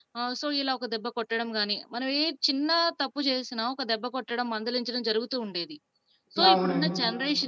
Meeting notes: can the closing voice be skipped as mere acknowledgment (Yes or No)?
Yes